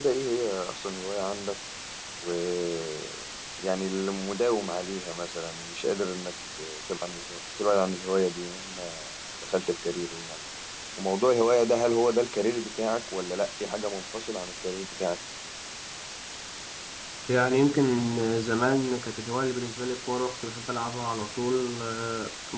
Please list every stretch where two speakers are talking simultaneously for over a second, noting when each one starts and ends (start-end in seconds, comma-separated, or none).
none